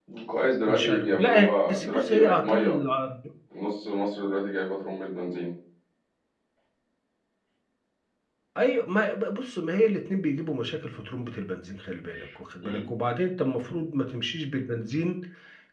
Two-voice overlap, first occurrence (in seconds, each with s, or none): 0.7 s